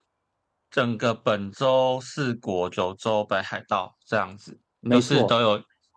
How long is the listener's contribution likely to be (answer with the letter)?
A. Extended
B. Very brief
B